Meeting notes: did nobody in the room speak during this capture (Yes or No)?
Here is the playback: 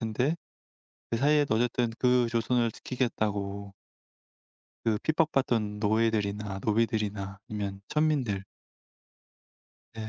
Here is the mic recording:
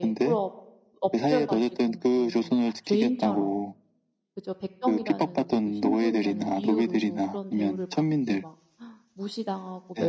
No